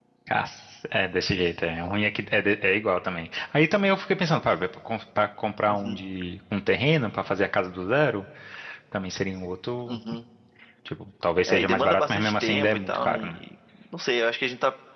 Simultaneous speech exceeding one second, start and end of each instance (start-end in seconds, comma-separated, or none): 11.5-13.4